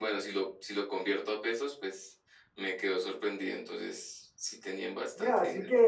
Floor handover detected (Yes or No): Yes